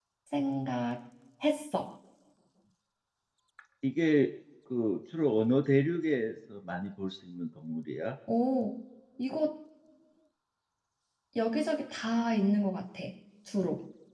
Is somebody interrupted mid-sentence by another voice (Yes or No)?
No